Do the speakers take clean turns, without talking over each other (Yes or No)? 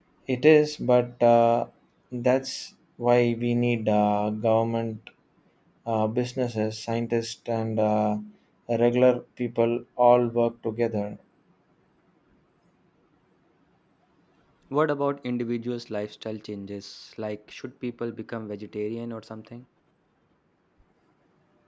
Yes